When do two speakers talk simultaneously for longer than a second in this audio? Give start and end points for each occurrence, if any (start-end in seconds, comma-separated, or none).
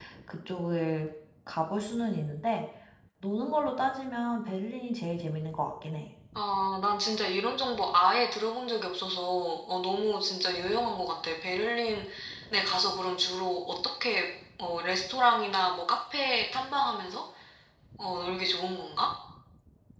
none